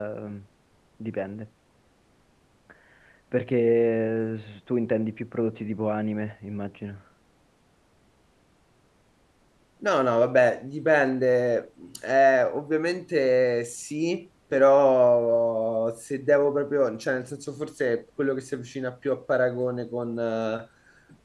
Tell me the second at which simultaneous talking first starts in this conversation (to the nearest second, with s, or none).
none